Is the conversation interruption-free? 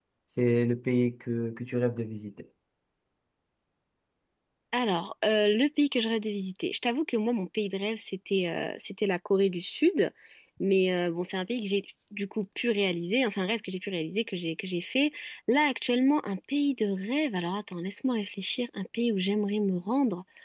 Yes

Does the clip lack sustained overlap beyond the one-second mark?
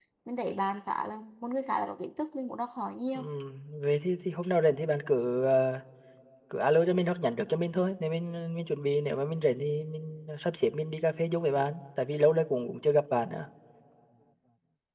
Yes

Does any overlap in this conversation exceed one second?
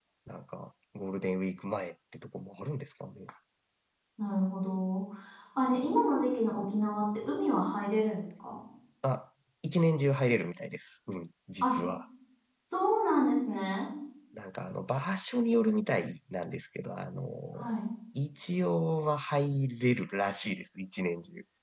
No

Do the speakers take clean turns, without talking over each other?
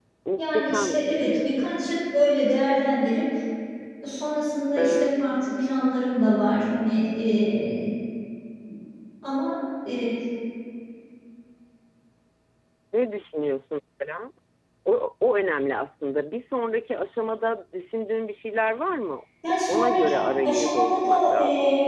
No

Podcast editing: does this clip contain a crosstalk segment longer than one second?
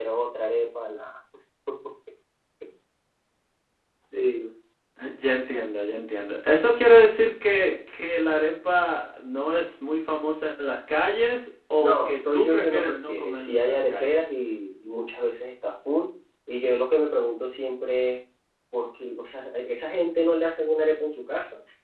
Yes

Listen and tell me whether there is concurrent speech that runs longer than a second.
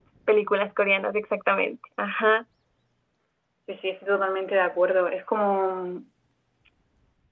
No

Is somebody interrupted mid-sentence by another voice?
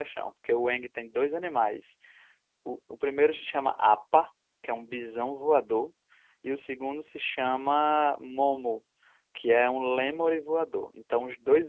No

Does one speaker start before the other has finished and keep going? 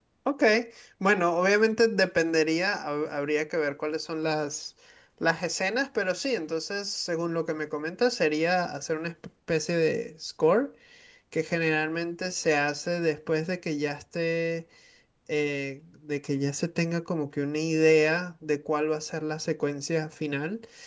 No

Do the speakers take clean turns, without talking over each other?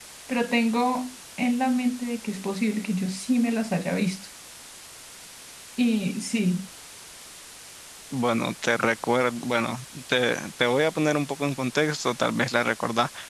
Yes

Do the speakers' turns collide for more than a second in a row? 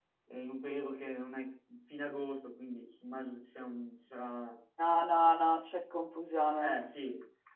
No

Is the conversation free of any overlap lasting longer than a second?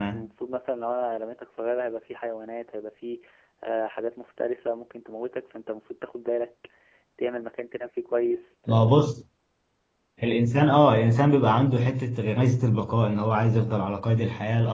Yes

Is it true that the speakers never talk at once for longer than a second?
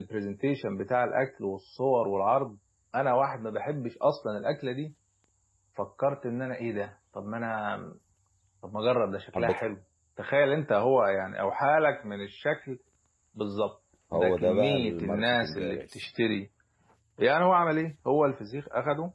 No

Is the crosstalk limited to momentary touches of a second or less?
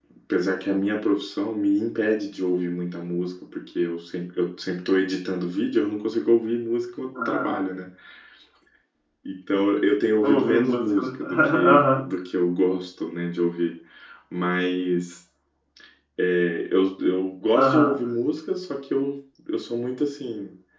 No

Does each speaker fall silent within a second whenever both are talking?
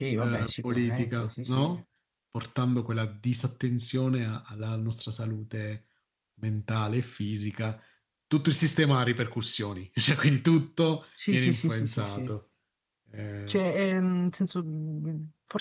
No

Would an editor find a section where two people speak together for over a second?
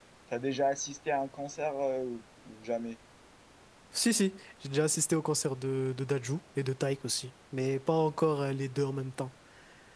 No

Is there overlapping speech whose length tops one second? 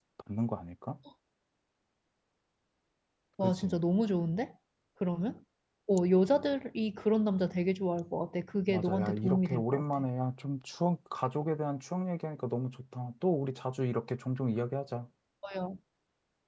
Yes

